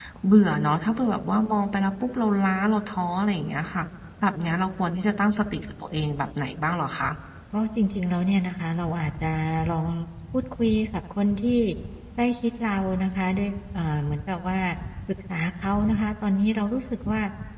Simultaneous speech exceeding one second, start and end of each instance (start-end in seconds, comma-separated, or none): none